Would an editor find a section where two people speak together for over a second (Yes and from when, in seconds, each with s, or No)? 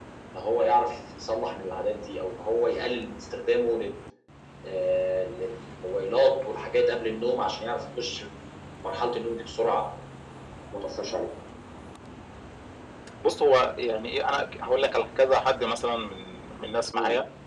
No